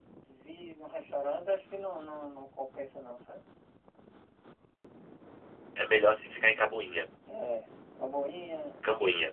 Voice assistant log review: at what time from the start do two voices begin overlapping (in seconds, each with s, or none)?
none